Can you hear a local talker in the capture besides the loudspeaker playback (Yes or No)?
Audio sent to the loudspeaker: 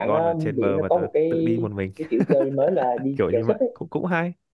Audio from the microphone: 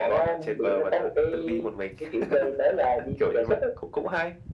No